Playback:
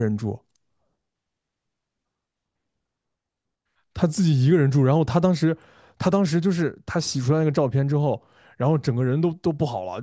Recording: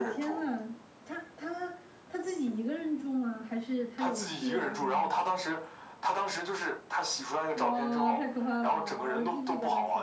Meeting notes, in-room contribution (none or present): present